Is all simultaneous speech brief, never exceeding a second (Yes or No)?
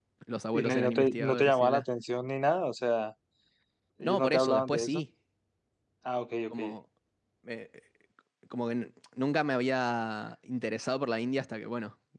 No